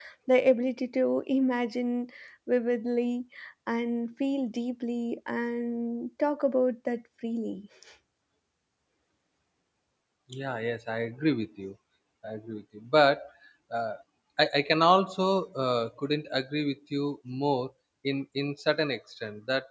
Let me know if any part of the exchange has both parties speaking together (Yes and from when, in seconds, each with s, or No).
No